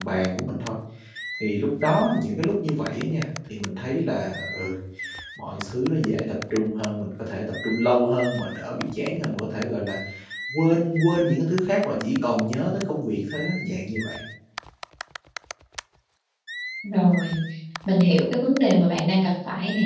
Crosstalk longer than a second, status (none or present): none